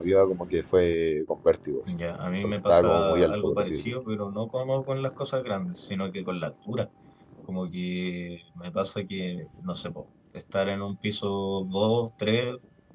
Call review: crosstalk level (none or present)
present